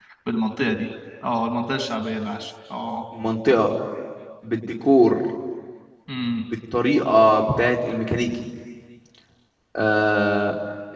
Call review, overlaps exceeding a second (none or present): none